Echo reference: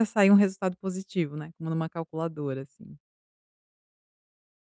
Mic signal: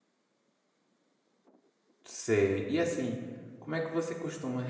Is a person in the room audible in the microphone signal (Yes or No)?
Yes